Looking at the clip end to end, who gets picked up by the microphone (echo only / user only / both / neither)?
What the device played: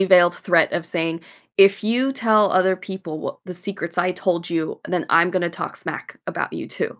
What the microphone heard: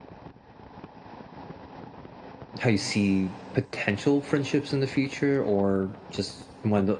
user only